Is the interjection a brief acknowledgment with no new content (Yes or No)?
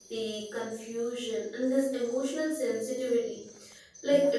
Yes